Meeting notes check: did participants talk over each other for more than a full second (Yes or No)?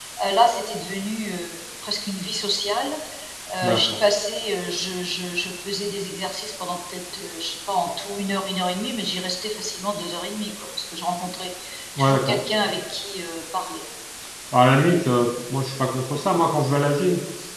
No